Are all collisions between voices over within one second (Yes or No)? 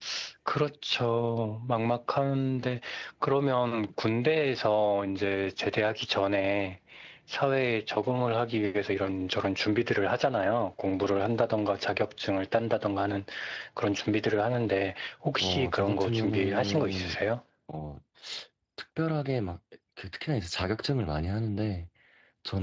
No